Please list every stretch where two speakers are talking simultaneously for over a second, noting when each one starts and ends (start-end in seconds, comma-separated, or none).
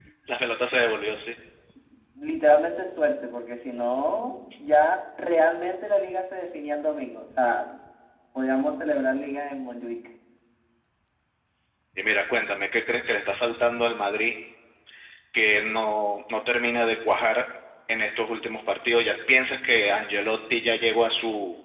none